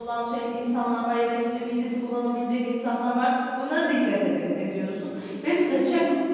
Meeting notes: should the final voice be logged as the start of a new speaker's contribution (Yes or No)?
No